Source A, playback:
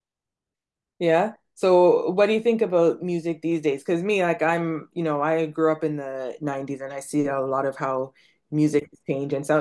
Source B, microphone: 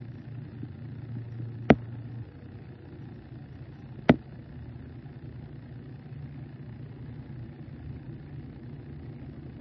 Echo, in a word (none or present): none